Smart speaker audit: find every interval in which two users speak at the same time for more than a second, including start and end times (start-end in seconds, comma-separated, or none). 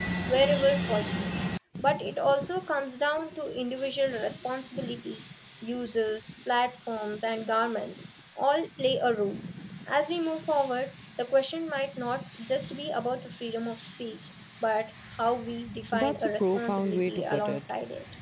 15.9-17.6